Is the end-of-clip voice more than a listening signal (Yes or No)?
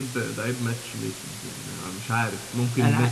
No